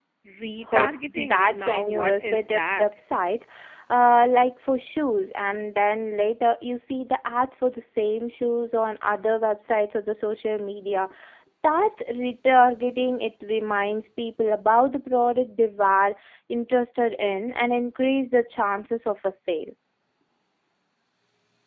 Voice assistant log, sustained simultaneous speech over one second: present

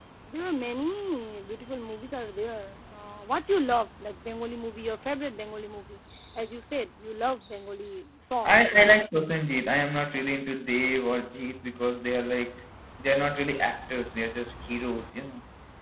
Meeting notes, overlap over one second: none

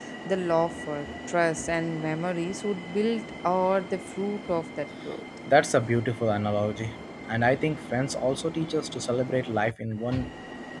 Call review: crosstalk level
none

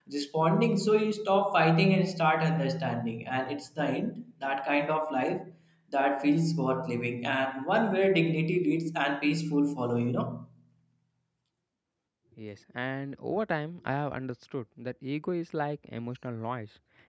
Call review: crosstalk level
none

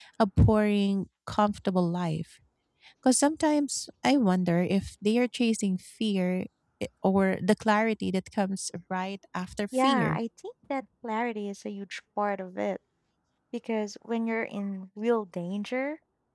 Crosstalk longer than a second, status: none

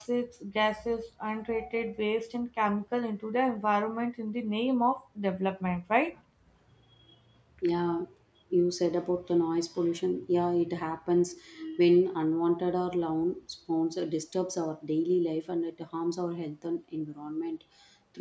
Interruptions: none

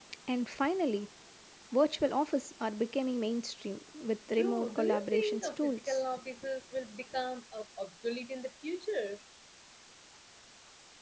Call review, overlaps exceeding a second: present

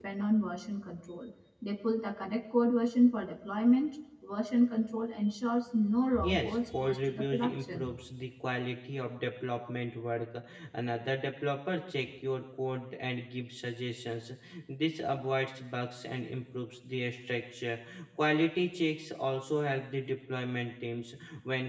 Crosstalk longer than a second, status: present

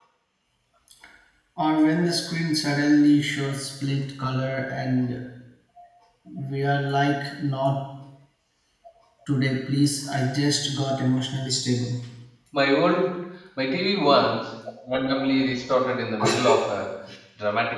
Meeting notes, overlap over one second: none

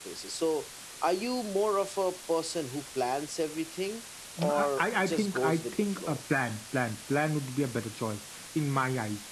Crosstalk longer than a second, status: present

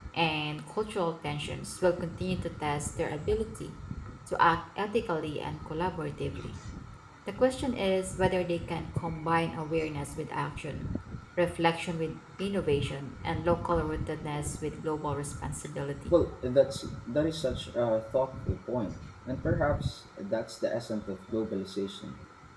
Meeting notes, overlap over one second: none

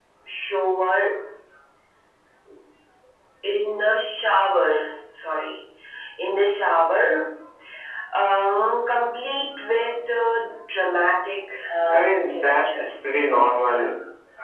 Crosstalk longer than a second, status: present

